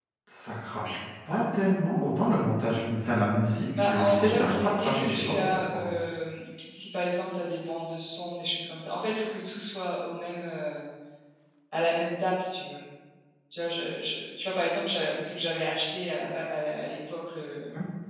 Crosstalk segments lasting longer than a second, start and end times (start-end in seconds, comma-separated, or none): 3.8-5.8